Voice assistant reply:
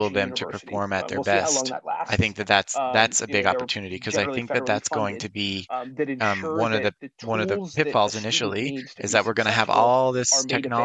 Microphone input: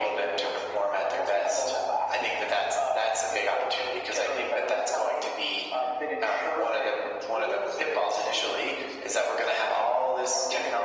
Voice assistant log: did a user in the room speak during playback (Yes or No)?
No